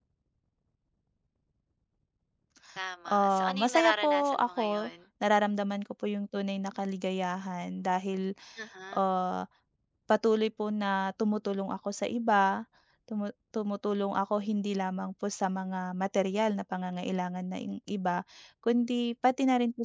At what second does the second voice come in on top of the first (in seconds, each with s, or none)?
3.1 s